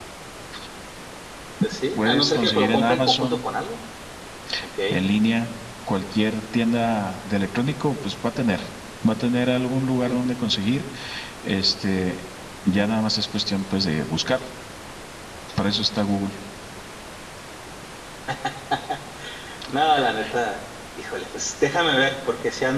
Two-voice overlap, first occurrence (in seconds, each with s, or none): 2.0 s